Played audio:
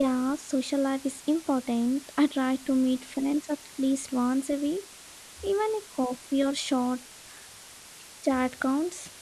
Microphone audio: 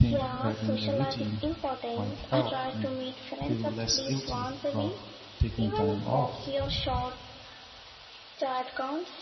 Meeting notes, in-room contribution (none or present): present